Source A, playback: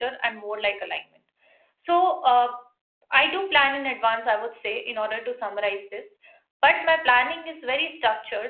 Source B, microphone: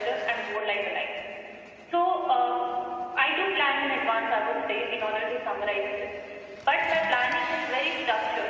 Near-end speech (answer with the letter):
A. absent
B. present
A